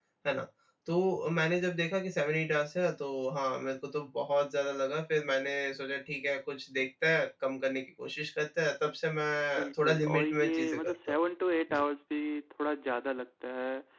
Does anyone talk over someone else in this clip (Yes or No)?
Yes